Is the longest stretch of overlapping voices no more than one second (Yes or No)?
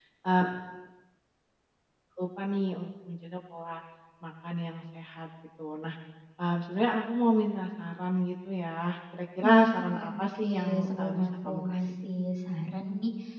No